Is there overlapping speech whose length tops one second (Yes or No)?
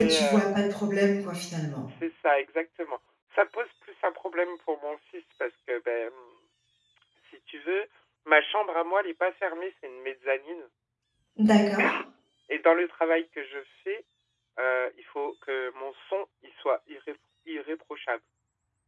No